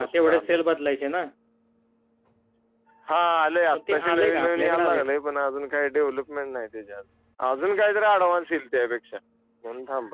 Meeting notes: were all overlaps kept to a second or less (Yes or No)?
No